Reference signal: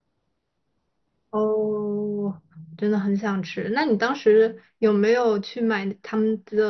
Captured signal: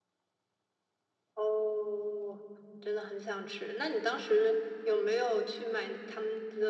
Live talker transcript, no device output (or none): none